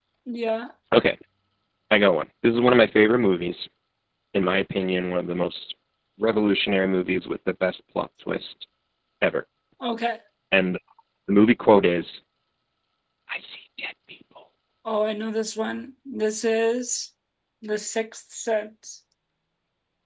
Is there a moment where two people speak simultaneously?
No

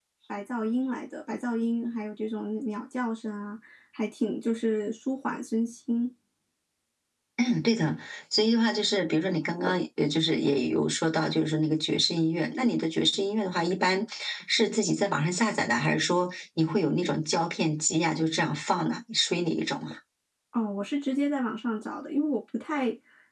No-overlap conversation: Yes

